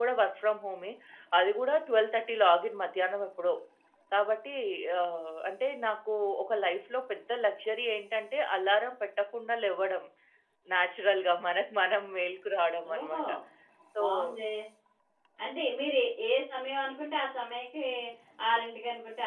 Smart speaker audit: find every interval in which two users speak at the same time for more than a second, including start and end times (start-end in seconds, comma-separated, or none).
none